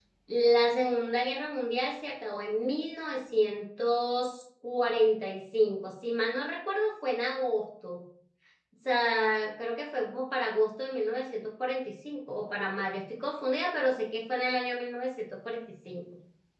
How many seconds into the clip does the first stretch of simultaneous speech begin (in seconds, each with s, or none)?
none